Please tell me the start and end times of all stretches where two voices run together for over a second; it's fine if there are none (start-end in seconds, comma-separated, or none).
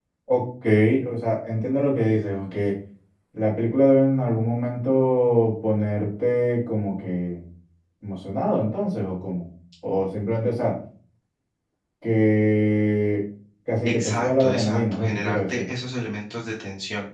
13.8-15.6